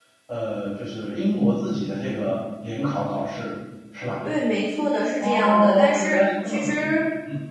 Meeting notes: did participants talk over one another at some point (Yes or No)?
Yes